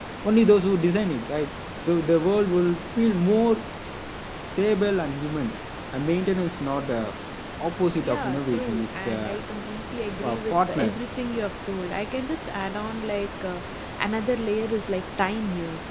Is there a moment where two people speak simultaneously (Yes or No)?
Yes